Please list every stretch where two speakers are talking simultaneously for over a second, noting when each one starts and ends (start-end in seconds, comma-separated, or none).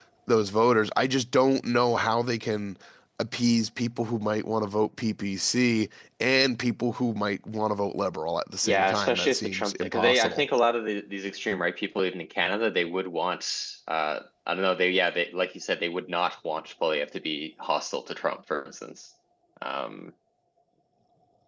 8.7-10.4